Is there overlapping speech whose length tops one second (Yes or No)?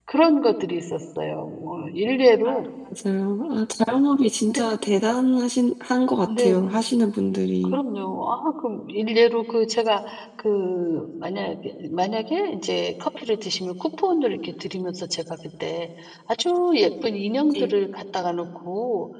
No